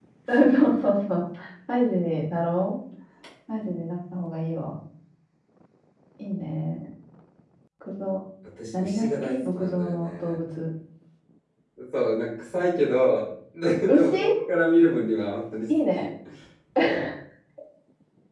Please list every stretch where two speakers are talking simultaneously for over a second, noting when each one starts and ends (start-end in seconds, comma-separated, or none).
8.7-10.4